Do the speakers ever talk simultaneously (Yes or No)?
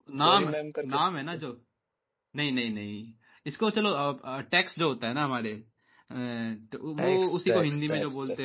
Yes